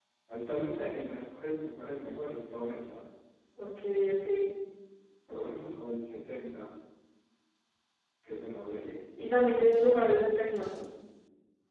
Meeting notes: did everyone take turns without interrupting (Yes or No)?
Yes